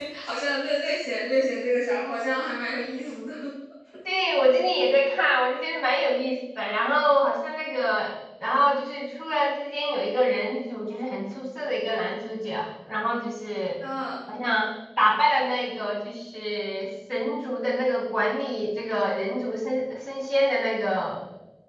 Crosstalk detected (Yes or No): No